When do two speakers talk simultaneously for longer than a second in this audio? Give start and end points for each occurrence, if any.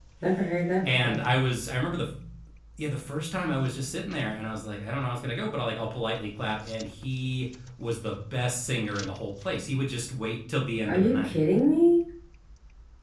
none

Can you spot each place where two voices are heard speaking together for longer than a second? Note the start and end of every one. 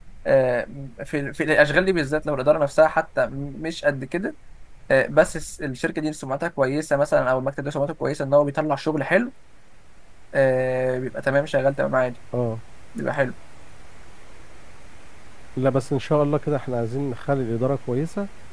none

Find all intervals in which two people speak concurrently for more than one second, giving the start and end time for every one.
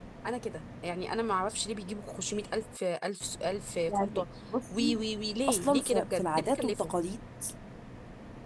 5.5-6.9

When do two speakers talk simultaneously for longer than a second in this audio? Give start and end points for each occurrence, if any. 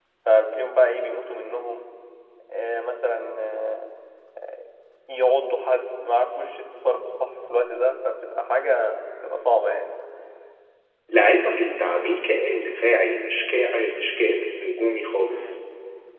none

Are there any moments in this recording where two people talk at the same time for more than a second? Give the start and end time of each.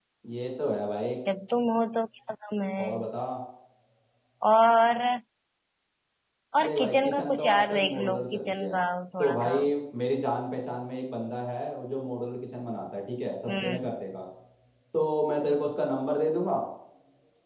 6.6-8.8

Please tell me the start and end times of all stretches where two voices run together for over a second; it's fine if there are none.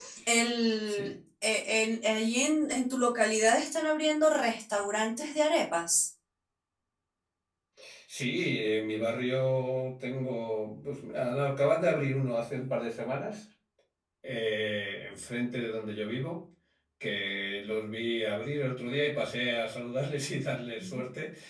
none

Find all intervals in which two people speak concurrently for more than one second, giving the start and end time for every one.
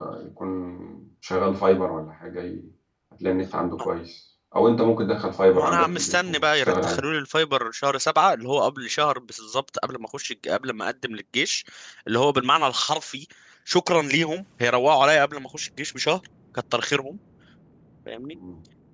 5.5-7.0

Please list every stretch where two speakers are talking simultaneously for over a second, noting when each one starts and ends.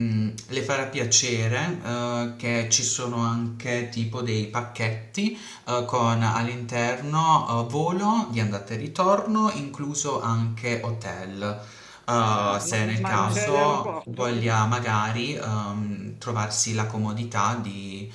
12.4-14.4

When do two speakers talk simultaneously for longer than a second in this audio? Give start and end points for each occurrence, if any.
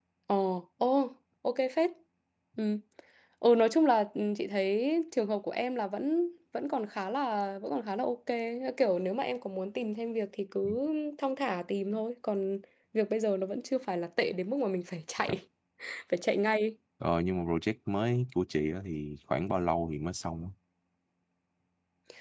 none

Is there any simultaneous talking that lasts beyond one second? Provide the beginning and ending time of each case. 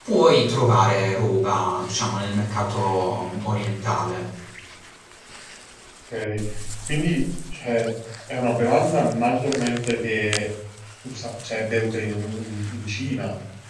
none

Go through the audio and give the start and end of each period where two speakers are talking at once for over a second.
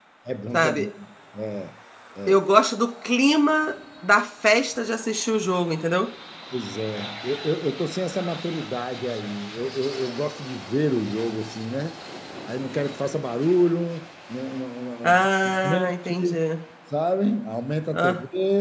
15.0-16.4

